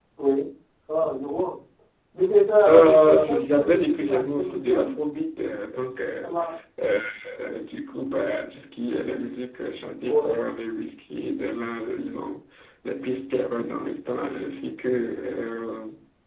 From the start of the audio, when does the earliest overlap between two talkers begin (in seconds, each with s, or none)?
2.7 s